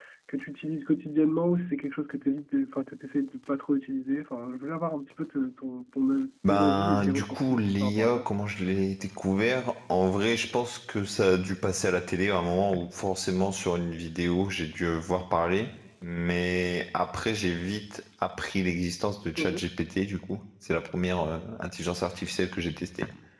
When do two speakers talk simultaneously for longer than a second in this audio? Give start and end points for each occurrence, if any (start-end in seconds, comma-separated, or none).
6.5-8.2